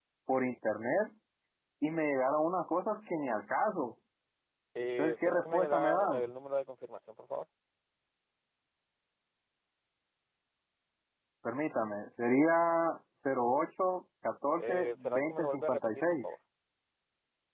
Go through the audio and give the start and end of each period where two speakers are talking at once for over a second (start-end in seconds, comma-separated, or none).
5.0-6.2, 14.6-16.2